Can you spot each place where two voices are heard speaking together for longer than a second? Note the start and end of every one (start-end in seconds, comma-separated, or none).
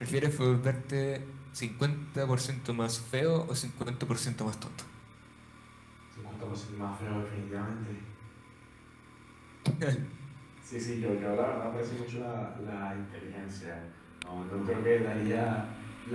none